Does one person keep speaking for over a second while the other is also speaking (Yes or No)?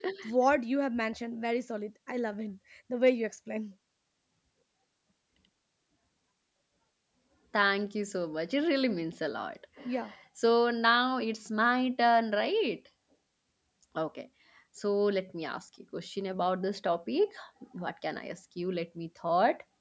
No